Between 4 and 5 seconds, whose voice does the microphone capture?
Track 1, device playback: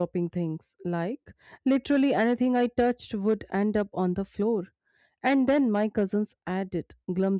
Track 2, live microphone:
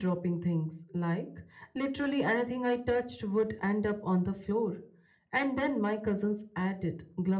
echo only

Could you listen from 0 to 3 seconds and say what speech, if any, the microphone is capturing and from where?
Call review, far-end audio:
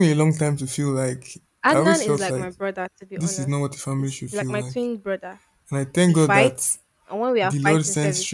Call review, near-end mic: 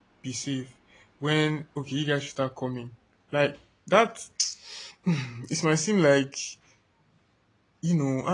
user only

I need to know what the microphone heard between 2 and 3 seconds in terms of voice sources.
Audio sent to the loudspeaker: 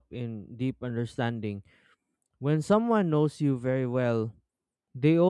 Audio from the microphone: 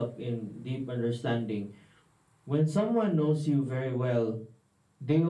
echo only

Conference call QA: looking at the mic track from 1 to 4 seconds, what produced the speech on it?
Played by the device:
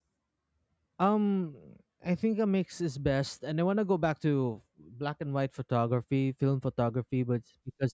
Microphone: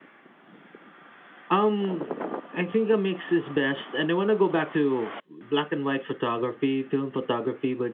echo only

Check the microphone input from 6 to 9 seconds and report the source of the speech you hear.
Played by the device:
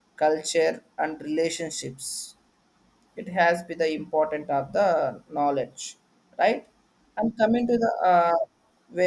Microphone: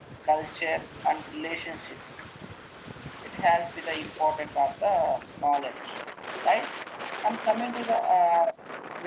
echo only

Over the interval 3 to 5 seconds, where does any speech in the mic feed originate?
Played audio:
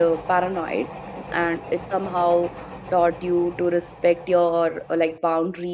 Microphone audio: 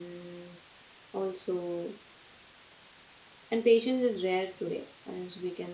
user only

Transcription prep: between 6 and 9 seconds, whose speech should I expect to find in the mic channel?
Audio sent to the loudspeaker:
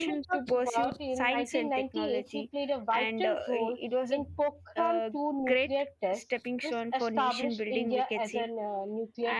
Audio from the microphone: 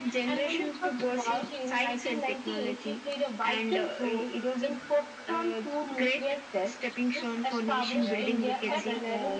both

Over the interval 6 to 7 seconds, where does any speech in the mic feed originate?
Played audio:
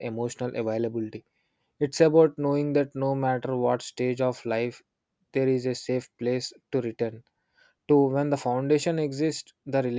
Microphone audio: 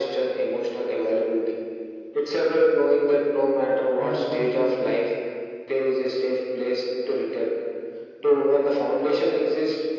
echo only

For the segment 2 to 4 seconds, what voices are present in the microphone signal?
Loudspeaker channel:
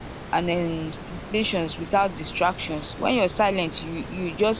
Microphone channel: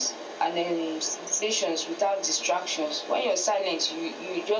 echo only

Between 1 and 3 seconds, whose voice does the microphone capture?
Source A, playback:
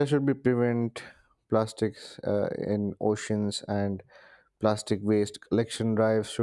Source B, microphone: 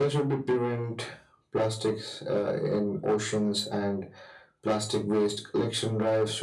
echo only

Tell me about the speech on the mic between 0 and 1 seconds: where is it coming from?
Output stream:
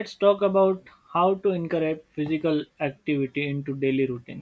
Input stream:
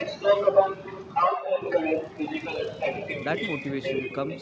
echo only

